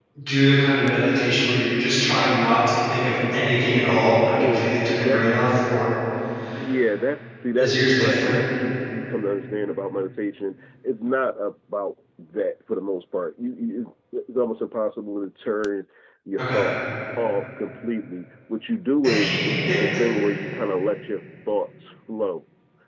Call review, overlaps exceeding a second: present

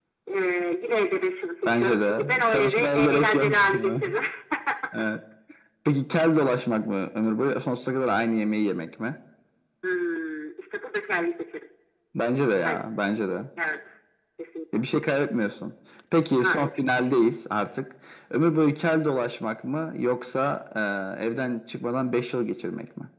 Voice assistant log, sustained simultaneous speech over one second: present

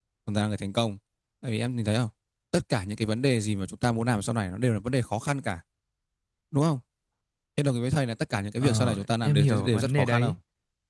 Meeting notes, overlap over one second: present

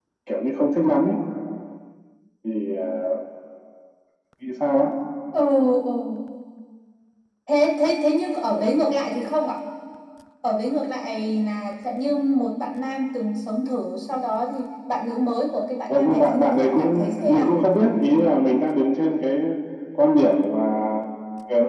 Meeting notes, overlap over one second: present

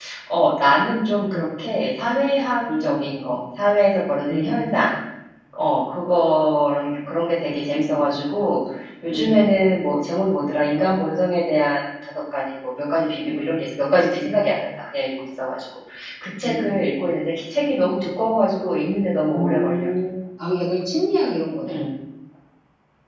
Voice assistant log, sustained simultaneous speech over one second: none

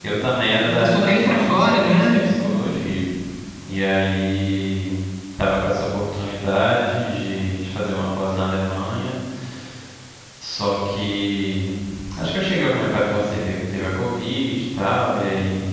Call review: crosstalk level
present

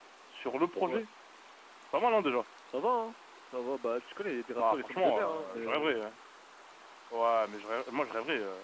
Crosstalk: present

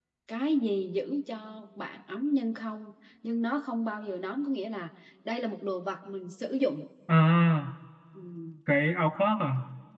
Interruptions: none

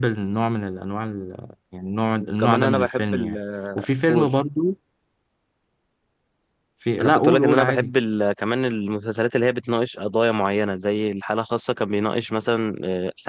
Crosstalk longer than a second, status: present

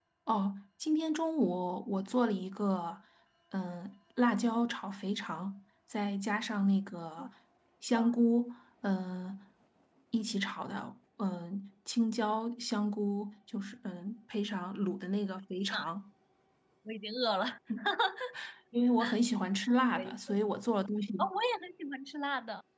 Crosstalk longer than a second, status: none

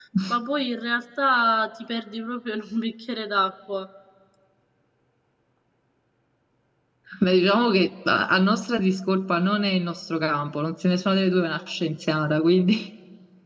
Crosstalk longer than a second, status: none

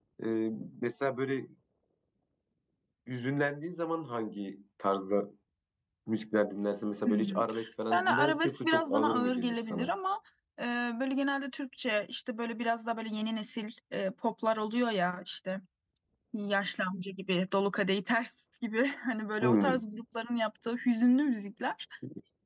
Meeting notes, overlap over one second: present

